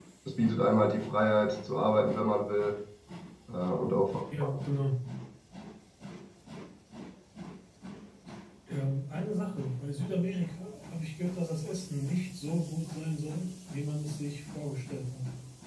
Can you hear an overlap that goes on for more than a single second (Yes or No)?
No